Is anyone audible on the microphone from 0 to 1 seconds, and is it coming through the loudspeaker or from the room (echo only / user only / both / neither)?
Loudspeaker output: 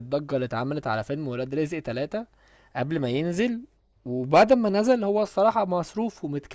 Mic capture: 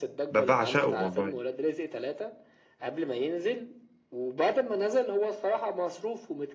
both